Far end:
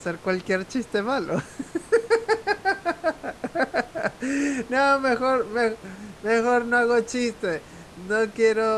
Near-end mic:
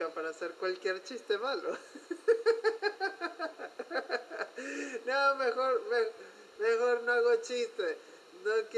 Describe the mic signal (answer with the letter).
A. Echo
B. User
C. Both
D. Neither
A